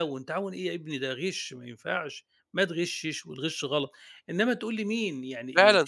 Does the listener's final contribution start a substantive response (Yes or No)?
Yes